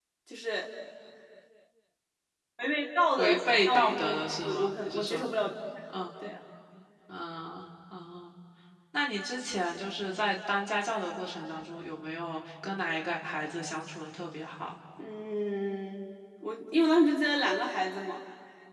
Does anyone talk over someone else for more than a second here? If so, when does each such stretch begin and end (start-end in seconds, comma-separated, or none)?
3.2-5.3